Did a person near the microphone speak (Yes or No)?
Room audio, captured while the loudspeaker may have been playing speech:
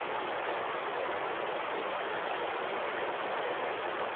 No